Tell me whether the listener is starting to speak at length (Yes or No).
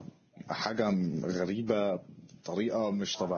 Yes